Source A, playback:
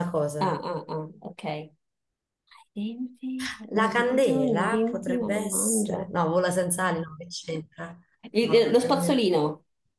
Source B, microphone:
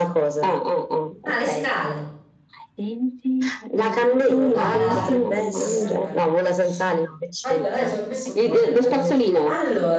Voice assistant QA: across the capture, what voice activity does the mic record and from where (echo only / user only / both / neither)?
both